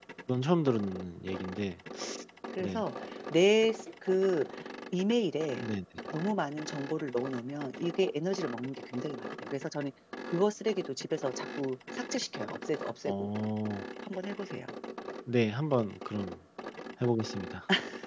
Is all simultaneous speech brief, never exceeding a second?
Yes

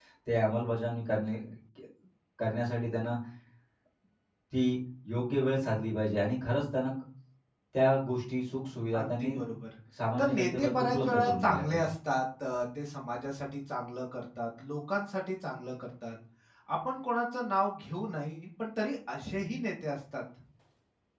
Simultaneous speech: Yes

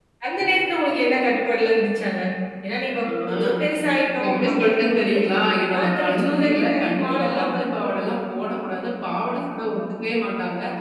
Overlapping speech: Yes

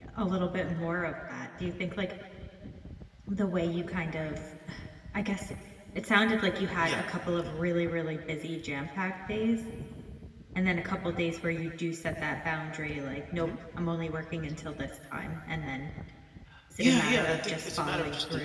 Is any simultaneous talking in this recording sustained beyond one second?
Yes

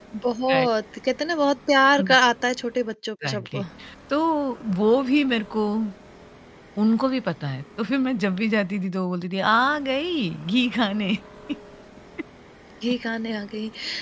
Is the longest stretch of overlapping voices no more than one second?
Yes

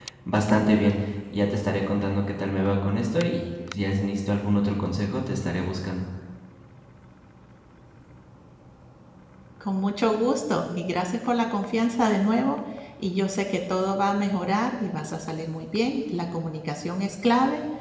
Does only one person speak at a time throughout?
Yes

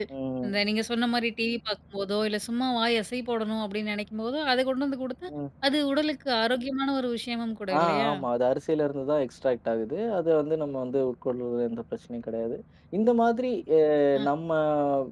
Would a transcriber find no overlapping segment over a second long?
Yes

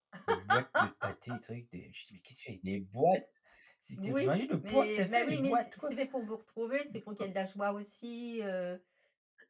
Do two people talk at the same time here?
Yes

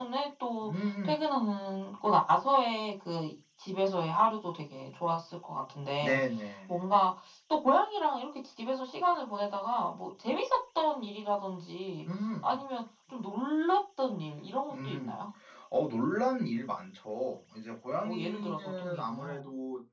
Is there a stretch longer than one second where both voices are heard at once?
Yes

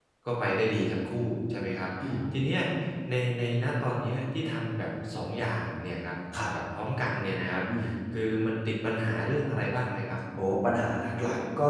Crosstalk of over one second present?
No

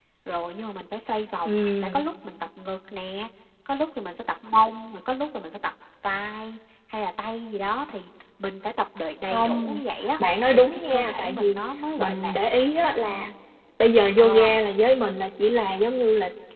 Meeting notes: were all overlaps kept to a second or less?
No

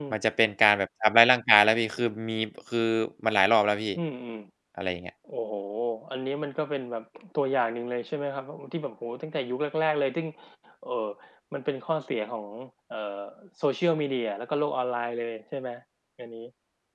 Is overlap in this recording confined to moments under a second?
Yes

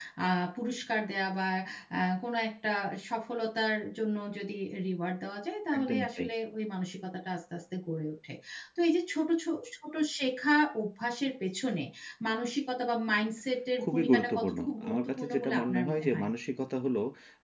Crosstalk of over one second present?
Yes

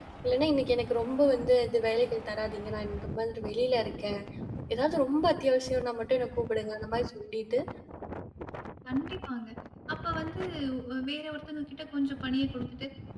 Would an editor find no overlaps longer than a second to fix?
Yes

